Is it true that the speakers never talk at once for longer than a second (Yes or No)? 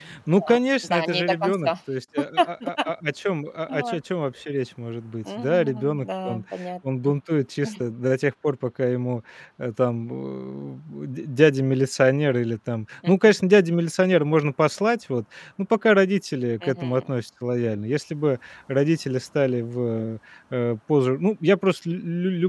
No